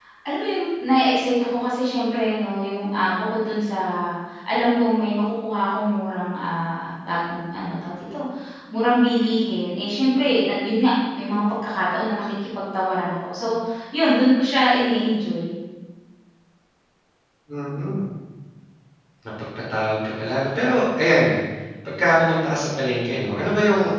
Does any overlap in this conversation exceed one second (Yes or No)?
No